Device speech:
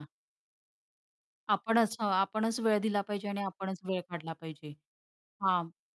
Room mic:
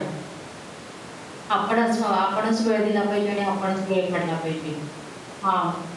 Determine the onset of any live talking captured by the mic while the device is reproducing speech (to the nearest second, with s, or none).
none